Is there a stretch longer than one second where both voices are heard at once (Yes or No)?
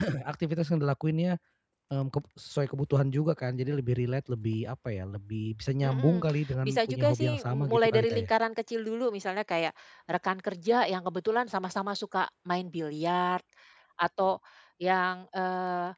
Yes